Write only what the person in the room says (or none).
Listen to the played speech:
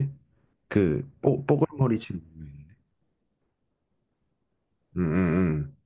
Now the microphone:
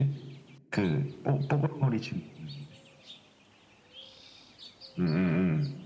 none